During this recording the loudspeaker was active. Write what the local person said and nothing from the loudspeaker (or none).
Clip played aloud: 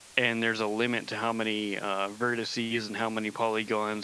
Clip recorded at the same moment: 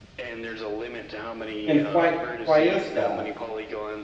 And why why is that?